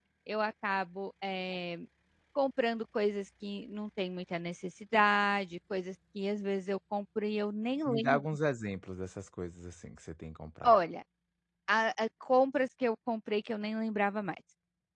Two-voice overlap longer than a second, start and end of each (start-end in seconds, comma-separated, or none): none